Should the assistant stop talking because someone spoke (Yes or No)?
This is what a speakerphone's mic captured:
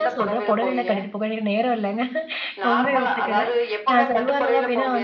Yes